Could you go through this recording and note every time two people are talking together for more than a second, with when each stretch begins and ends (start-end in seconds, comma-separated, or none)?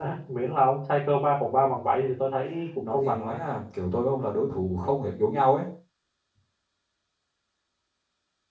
none